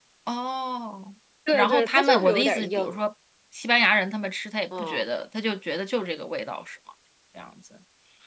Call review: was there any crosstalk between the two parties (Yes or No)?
Yes